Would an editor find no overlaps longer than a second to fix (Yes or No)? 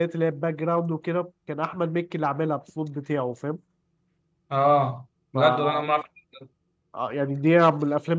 Yes